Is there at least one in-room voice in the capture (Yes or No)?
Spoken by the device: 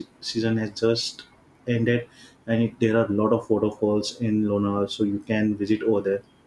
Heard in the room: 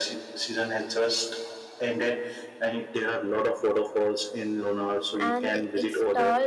Yes